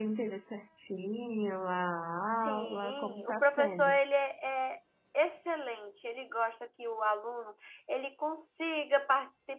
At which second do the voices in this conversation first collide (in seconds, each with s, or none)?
2.3 s